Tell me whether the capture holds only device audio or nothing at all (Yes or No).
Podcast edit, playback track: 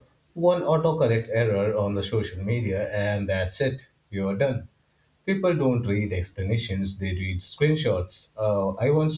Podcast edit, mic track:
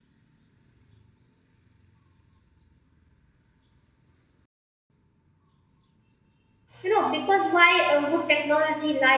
No